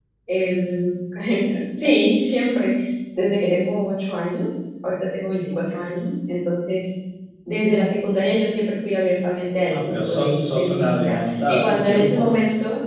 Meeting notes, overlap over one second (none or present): present